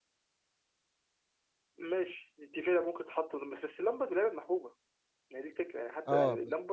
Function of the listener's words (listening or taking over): taking over